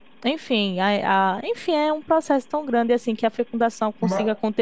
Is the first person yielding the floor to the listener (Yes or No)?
No